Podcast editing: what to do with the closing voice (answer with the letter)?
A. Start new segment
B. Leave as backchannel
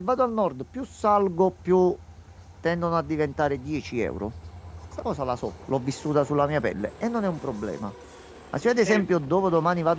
B